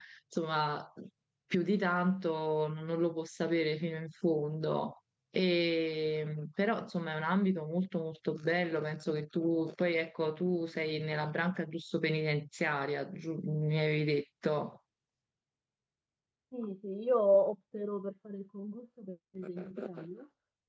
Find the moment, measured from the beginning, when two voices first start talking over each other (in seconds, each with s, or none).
none